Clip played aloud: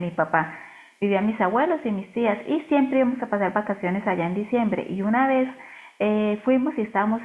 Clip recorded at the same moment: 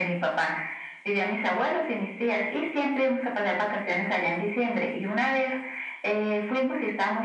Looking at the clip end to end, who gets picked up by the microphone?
echo only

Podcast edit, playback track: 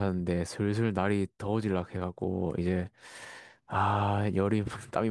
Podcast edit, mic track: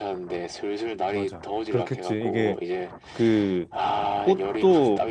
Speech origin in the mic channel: both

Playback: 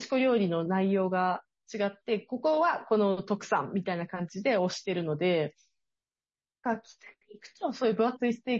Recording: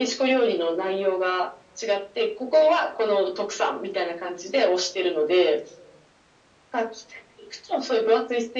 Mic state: echo only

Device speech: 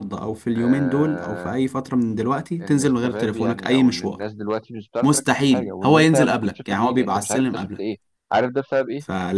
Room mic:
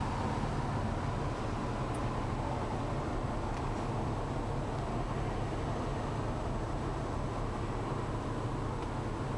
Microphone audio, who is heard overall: neither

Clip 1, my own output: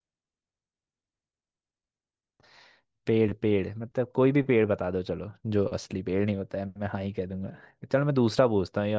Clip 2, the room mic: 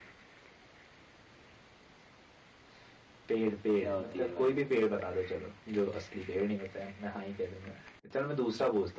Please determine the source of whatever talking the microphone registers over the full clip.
both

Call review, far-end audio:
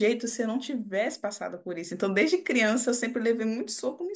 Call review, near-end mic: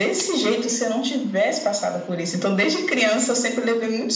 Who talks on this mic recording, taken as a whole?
echo only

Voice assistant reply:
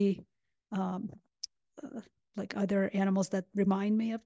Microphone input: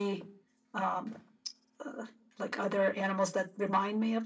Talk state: echo only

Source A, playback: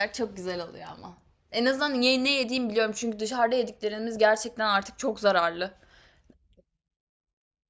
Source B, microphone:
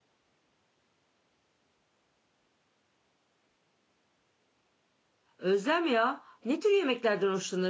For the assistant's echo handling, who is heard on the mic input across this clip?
user only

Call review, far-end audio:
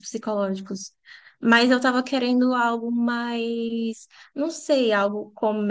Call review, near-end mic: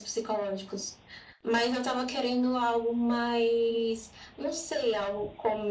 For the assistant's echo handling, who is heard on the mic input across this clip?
echo only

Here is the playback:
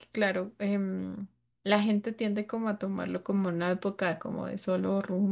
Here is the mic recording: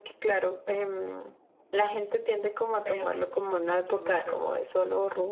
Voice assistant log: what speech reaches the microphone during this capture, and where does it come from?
both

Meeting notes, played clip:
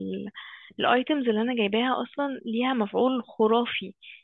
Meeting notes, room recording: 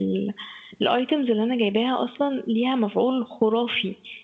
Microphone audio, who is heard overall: echo only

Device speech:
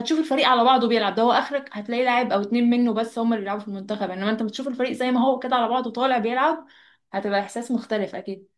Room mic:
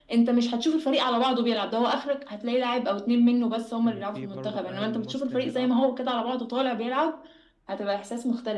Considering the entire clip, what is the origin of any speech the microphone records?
both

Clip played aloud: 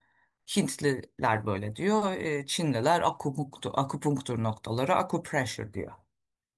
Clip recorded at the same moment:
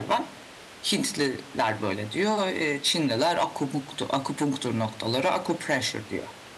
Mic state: echo only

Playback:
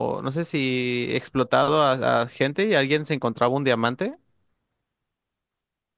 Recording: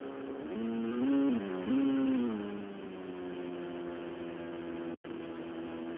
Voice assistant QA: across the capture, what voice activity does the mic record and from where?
neither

